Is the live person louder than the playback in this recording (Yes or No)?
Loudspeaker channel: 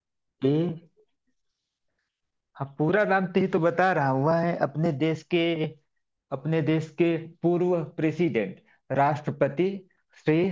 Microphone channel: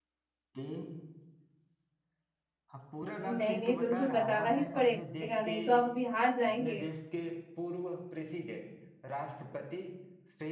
Yes